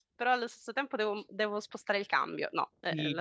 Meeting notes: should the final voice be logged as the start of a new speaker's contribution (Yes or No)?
Yes